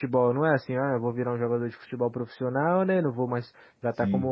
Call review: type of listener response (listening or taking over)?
listening